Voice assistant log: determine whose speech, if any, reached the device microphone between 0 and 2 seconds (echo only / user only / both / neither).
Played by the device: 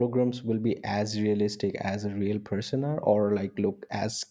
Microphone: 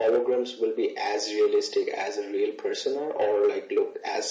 echo only